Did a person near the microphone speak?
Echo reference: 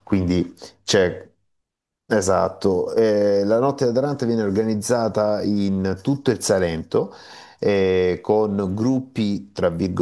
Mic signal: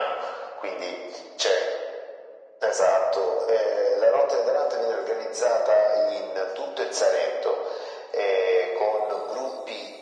No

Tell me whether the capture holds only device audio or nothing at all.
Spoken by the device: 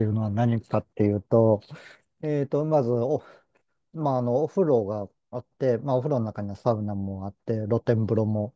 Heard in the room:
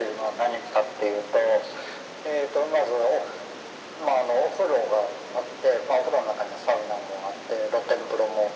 Yes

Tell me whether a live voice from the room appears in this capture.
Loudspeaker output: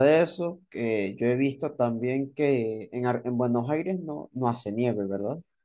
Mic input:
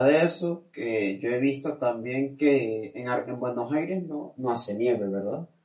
No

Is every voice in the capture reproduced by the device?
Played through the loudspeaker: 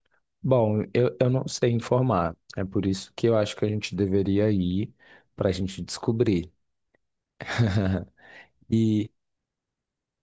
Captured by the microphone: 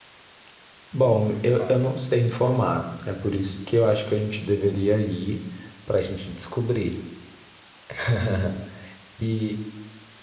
No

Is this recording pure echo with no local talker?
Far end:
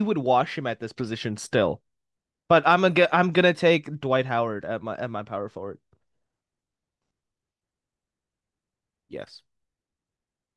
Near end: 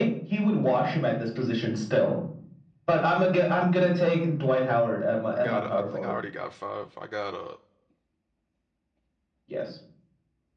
No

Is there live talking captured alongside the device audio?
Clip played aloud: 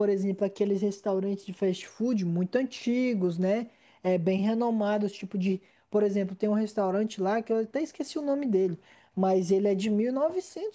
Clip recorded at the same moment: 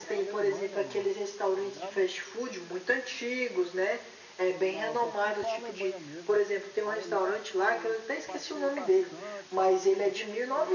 Yes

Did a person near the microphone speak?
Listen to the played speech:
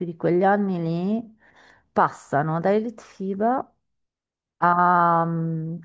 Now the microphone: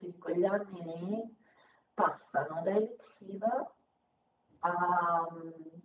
No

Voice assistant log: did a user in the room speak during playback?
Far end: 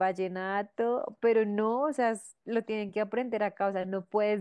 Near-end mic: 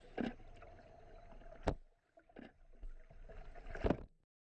No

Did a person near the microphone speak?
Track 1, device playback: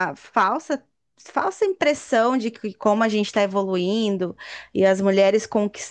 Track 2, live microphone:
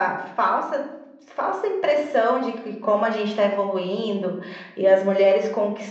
No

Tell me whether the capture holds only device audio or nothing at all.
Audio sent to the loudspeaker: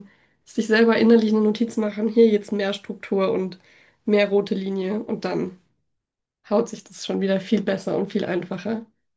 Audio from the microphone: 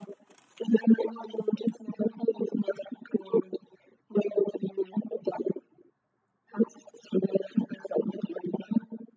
Yes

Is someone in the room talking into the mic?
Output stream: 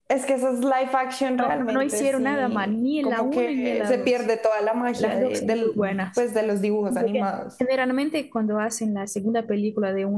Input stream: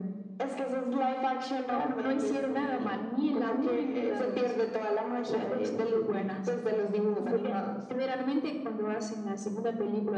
No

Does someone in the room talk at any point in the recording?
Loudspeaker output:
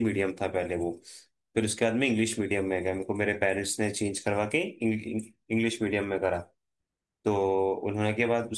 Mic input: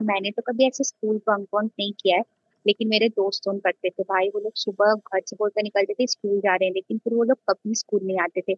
Yes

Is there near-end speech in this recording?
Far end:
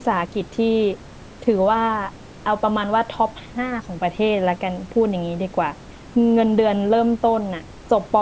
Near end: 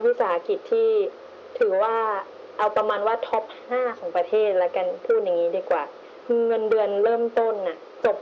No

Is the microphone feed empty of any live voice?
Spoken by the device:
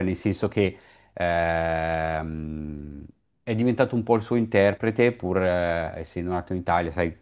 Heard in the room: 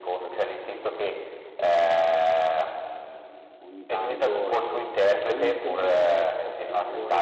No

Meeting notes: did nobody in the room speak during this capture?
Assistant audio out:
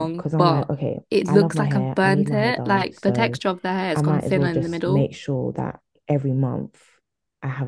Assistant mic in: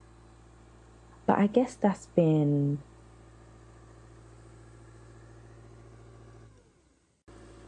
No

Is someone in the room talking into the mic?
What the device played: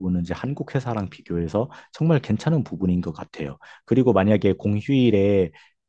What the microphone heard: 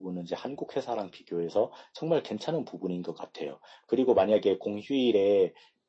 No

